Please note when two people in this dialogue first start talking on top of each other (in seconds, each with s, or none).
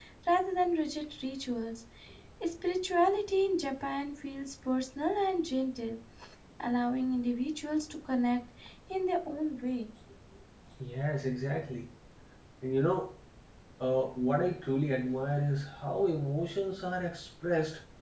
none